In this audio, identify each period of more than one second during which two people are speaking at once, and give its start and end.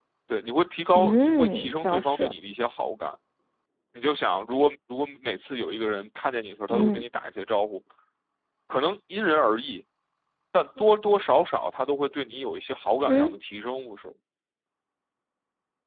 0.9-2.3

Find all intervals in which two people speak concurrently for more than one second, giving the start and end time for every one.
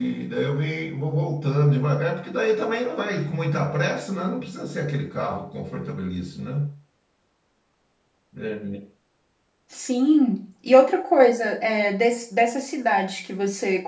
none

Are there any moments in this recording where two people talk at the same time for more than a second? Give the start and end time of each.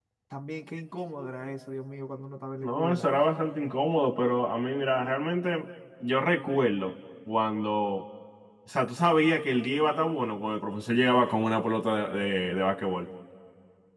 none

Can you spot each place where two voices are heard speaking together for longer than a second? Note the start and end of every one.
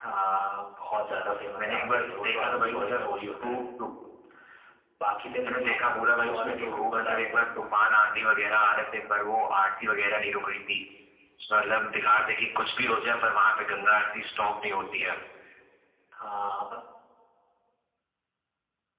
1.6-3.0, 5.5-7.6

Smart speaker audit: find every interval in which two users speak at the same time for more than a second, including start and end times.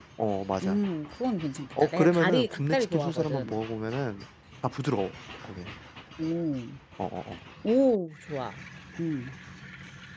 1.8-3.6

